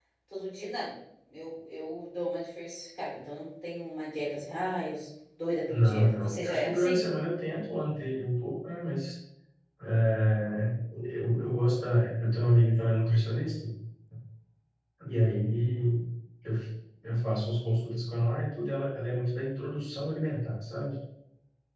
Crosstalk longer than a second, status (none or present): present